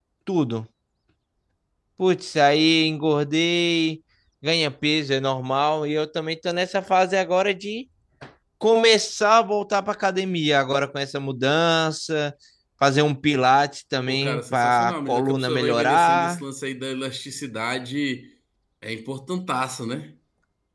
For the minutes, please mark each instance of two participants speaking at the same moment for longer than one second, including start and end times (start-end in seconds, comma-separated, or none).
14.1-16.4